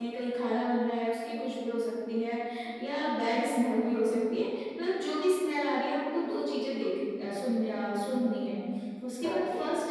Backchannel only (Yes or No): Yes